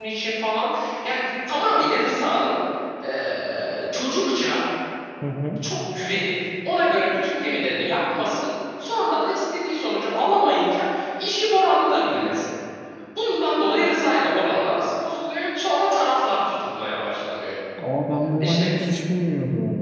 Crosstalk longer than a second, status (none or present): none